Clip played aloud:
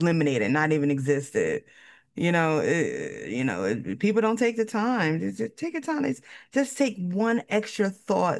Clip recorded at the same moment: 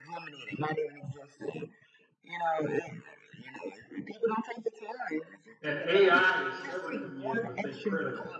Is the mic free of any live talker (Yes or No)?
No